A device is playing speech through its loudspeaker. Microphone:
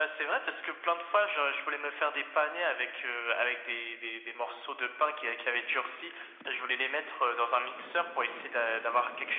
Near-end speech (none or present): none